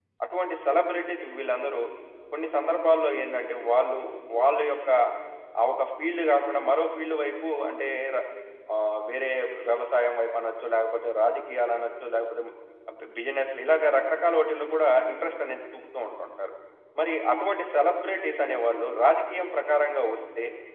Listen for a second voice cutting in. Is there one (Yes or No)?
No